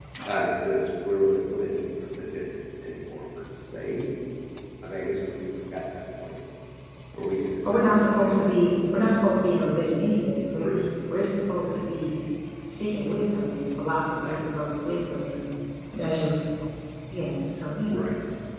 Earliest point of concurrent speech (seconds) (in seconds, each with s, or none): 7.7 s